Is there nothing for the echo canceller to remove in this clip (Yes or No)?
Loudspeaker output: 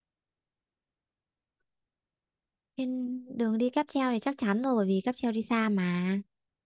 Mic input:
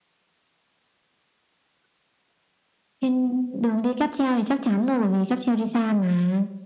No